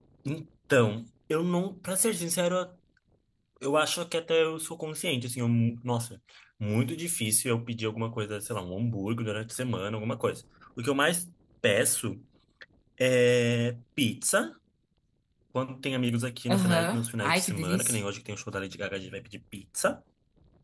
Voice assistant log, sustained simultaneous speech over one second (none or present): present